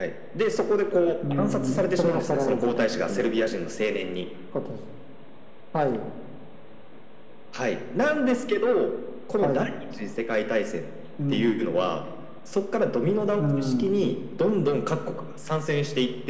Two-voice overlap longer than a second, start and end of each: 1.3-3.4

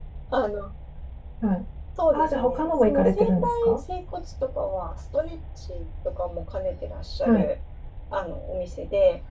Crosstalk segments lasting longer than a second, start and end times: 2.1-3.8

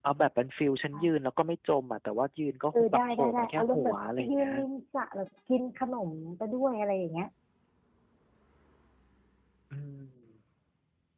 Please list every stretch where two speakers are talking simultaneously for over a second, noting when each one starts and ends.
2.7-4.5

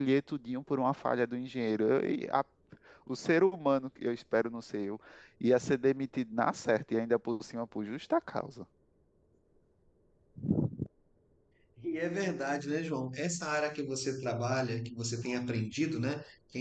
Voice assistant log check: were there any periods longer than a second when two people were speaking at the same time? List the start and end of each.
none

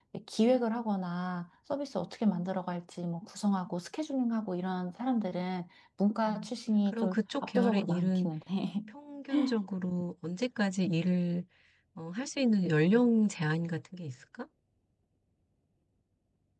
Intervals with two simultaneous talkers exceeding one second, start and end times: 6.9-8.3

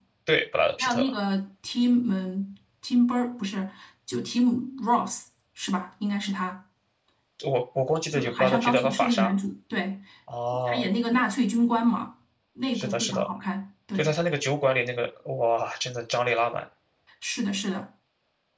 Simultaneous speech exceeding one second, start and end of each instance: 8.1-9.3

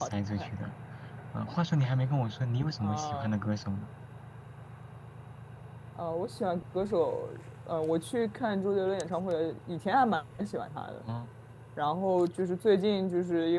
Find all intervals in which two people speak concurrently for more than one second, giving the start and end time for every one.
none

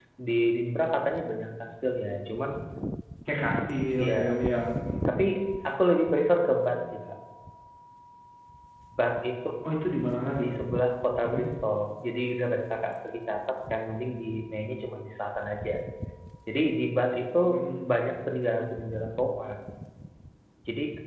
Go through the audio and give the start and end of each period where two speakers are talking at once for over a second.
none

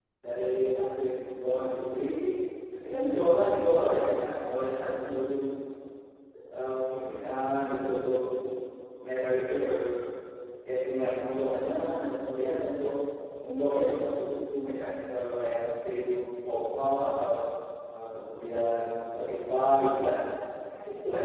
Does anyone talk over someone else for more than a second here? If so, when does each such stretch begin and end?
none

